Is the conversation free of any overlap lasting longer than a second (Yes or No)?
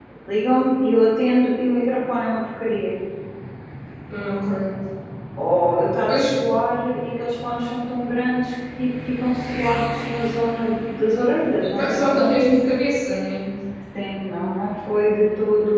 Yes